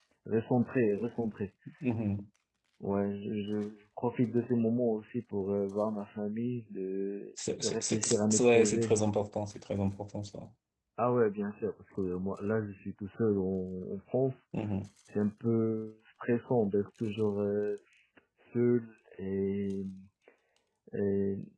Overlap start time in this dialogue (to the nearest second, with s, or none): 8 s